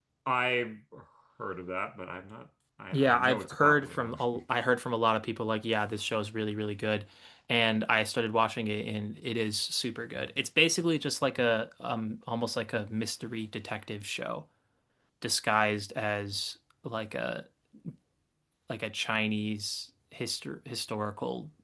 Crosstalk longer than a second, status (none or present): present